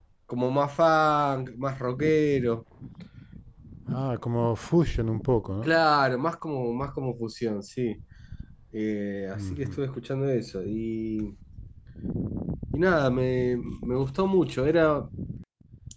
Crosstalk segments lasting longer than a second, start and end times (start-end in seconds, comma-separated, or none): none